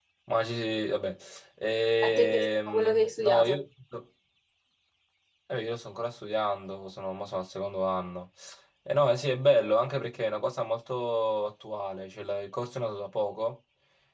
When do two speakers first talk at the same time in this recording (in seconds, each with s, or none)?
2.0 s